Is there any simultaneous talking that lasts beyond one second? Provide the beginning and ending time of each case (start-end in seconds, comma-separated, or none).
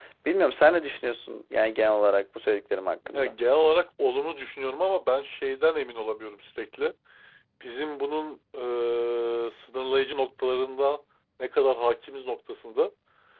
none